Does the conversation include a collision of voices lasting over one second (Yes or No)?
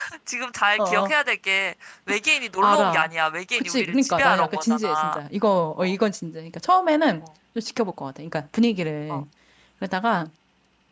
Yes